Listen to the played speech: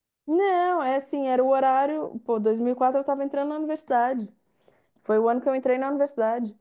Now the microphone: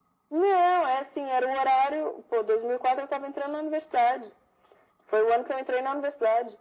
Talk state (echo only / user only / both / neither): echo only